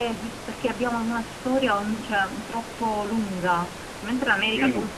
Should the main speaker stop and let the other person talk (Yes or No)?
No